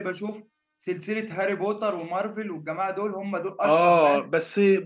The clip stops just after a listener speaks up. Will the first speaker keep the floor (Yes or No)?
No